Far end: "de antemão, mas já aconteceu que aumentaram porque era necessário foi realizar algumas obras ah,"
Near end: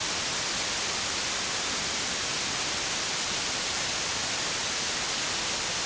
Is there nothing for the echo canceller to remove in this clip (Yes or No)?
Yes